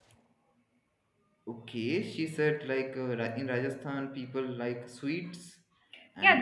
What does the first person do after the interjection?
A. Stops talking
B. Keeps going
A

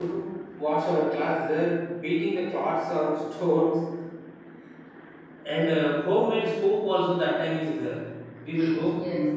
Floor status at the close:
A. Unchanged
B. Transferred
A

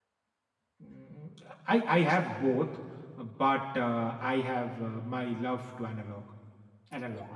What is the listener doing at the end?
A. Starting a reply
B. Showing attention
A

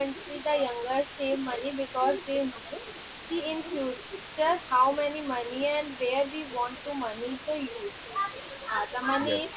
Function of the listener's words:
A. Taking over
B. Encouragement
B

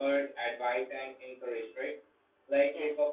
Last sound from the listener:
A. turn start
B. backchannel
B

